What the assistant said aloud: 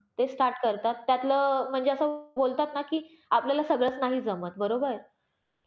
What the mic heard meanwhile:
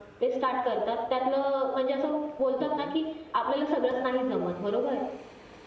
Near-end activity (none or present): present